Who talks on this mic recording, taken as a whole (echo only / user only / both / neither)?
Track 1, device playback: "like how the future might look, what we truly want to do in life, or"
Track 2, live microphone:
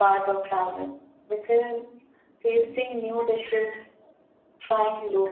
user only